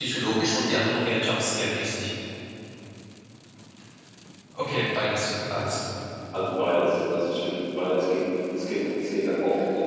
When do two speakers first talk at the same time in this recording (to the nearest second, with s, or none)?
none